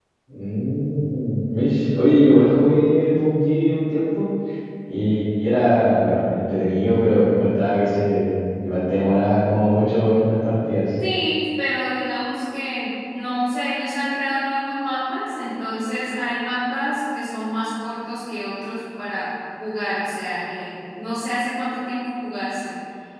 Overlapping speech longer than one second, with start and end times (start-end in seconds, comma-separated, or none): none